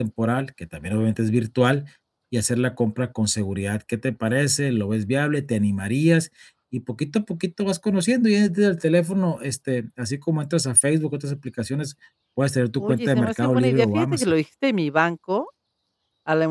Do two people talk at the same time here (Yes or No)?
Yes